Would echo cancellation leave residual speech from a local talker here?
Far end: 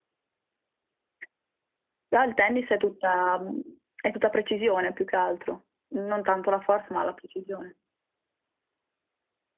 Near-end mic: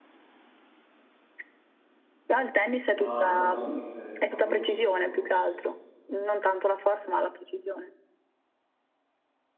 Yes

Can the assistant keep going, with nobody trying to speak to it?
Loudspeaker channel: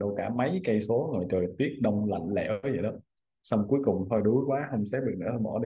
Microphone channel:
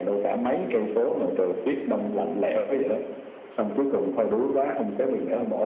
Yes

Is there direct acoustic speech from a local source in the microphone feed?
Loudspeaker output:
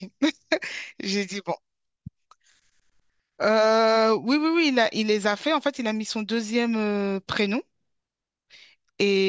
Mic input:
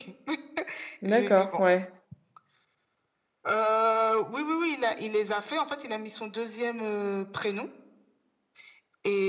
Yes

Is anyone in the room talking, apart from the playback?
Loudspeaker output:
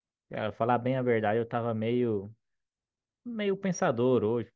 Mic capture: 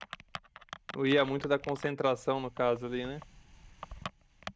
Yes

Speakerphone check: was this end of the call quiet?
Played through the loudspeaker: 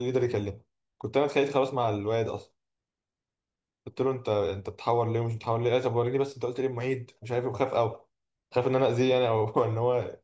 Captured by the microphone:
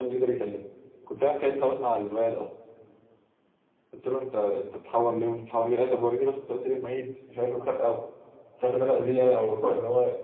Yes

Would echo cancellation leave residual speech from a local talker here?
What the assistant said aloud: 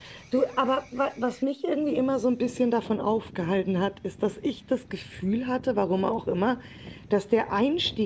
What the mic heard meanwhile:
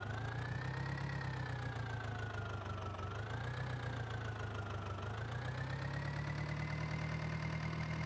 No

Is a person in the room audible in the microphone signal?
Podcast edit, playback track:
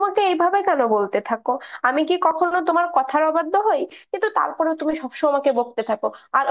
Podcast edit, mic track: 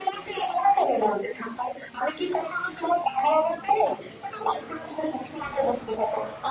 No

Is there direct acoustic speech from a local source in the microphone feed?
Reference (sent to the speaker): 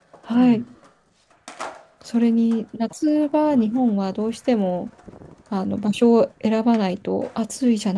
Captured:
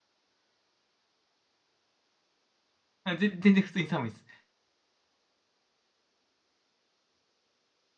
Yes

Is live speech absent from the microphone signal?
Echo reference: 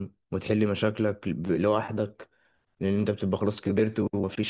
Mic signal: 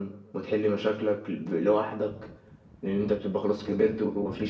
Yes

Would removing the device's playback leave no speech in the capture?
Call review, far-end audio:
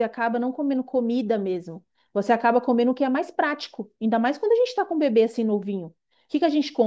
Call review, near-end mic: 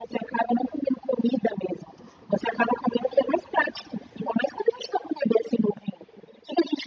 Yes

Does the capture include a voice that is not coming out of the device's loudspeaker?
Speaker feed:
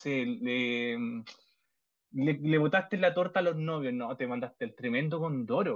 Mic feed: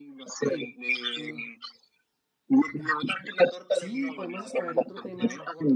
Yes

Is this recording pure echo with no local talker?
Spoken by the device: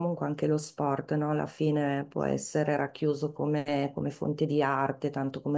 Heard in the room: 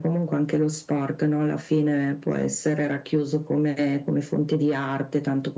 Yes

